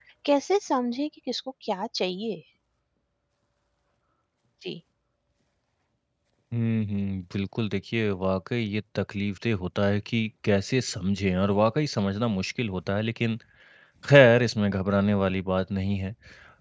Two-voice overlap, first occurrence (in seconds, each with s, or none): none